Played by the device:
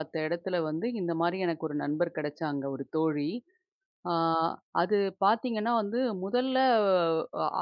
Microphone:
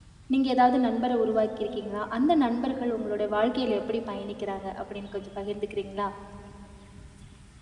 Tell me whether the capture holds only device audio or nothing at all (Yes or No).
No